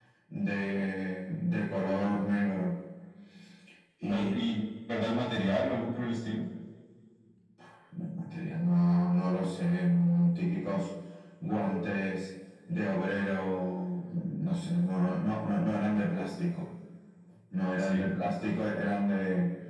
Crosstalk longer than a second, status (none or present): none